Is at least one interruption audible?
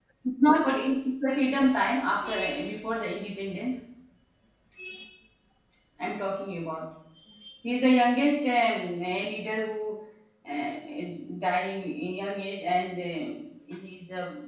No

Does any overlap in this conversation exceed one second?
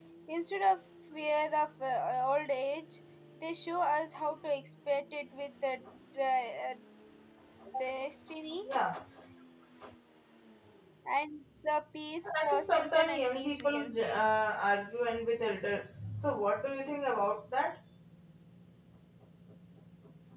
Yes, from 12.2 s

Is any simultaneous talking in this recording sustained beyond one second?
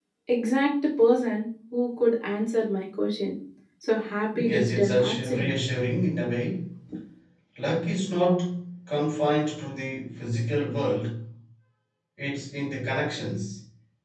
Yes, from 4.4 s

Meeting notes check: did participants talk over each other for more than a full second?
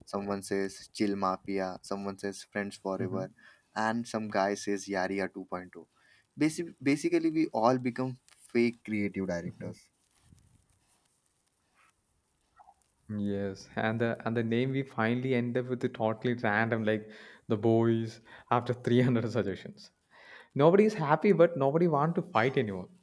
No

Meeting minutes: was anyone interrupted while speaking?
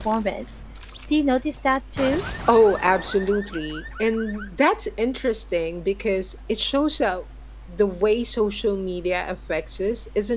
No

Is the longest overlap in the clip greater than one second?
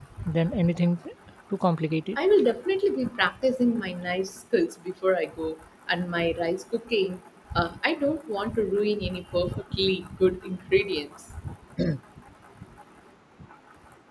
No

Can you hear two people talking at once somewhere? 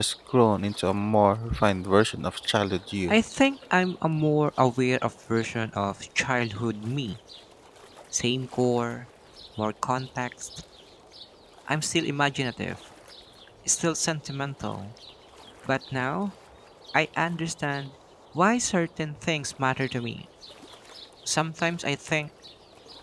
No

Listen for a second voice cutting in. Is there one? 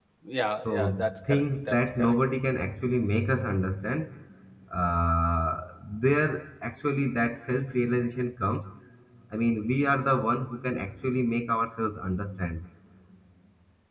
Yes, from 0.7 s

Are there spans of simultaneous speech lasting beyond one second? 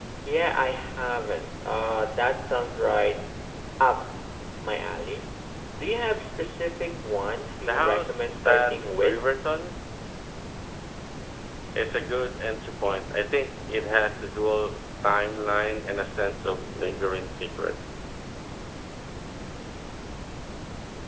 Yes, from 7.7 s

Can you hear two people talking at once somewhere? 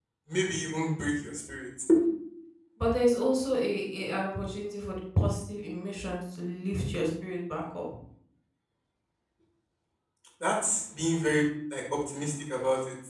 No

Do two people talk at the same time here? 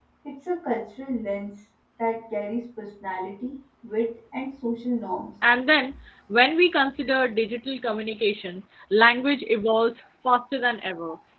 No

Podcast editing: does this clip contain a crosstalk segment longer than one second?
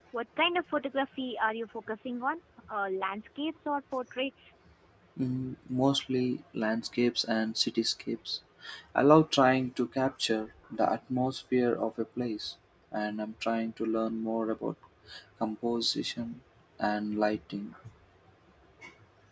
No

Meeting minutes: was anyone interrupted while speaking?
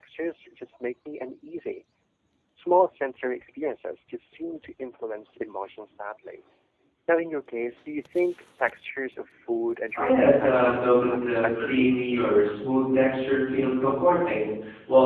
Yes, from 9.9 s

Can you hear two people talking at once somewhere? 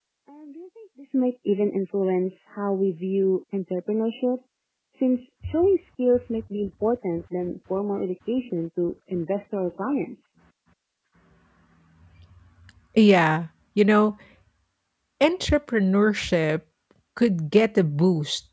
No

